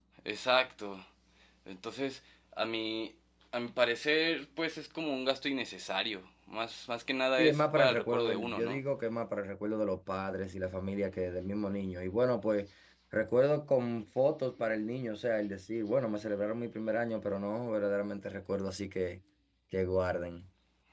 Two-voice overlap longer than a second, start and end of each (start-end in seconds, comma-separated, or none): 7.4-8.8